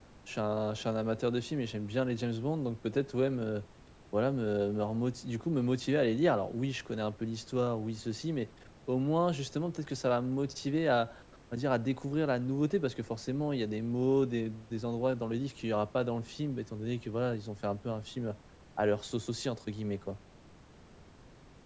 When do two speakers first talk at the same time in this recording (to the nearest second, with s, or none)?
none